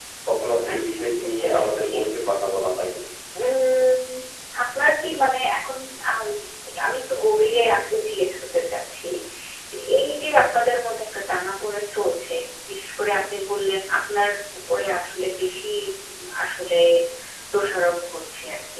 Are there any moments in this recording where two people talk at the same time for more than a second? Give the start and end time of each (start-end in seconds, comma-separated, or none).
0.7-1.9